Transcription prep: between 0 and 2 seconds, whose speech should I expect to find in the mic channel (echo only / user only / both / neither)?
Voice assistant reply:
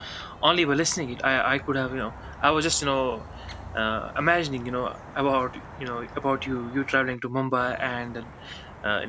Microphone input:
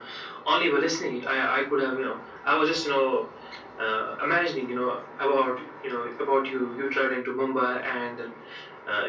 echo only